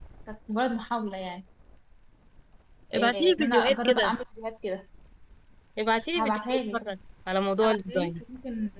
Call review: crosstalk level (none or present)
present